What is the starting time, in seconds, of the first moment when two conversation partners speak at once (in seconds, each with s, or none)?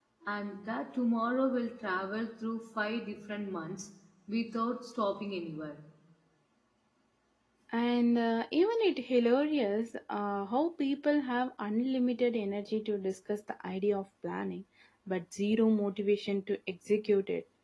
none